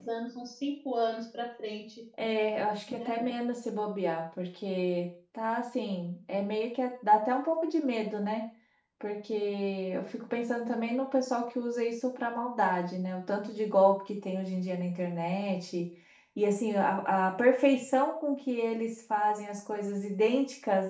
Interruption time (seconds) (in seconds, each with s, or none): none